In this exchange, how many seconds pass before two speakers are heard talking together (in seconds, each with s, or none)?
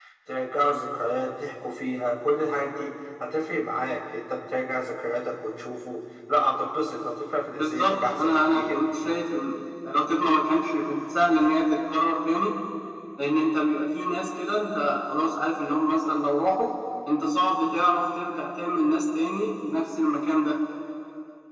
7.5 s